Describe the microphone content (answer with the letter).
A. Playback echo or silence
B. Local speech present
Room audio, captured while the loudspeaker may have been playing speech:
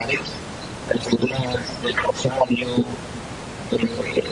A